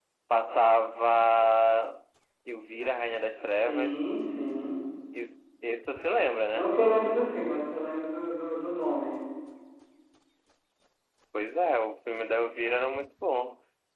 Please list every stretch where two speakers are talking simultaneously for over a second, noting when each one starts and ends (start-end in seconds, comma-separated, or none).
none